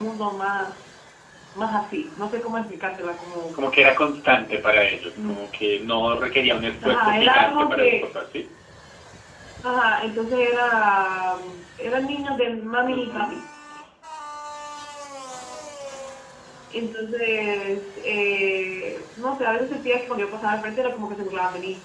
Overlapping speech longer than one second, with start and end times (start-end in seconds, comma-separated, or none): 6.8-8.1